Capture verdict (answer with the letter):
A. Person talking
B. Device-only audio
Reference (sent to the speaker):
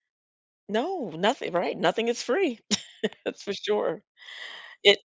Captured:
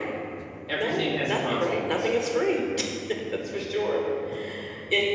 A